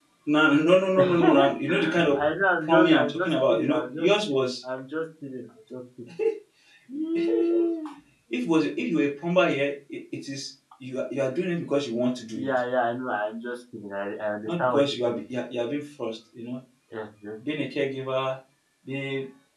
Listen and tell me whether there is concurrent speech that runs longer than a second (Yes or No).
Yes